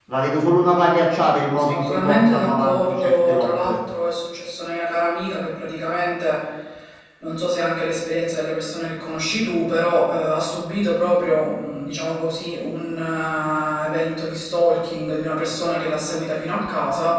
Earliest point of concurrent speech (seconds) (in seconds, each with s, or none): 1.6 s